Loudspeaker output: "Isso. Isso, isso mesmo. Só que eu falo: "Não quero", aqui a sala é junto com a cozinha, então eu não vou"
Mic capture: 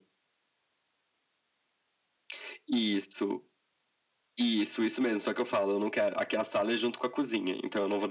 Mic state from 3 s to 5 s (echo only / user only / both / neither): echo only